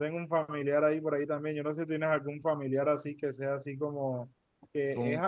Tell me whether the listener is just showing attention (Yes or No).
Yes